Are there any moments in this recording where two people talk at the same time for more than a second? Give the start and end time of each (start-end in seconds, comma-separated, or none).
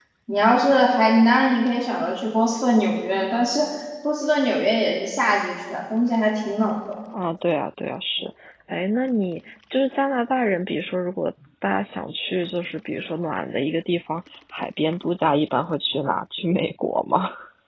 none